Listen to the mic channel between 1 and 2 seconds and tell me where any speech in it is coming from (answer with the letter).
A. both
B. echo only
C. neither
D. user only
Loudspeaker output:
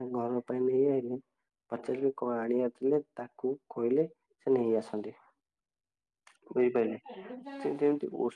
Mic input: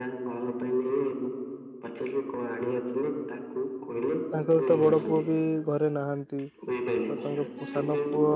B